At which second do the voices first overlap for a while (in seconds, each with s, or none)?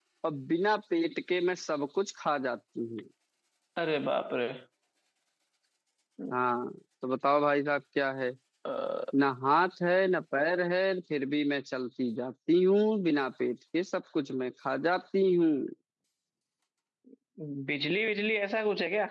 none